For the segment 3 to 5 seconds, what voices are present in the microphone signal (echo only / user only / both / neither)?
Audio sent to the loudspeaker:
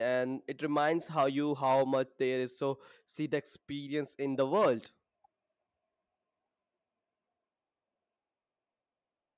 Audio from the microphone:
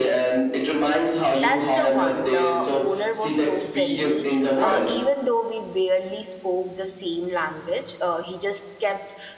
both